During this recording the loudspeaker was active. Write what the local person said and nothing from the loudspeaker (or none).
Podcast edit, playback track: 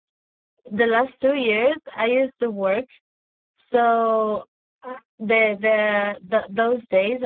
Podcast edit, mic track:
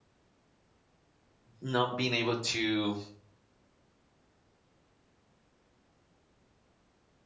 not being able to,